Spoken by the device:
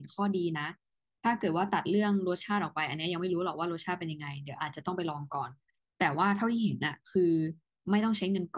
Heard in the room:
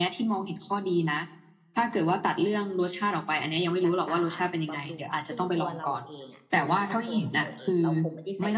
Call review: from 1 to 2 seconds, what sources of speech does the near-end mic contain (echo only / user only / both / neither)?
echo only